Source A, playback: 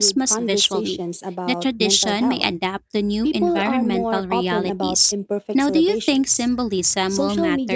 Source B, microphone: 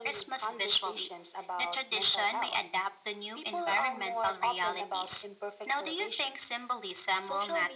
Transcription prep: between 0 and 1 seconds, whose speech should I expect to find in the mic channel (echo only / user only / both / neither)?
echo only